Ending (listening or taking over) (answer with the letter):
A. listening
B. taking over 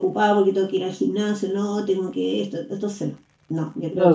B